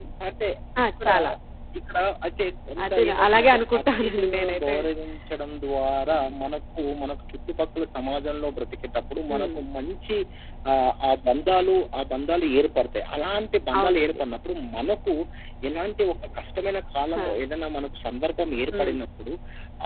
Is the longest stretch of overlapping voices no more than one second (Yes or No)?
No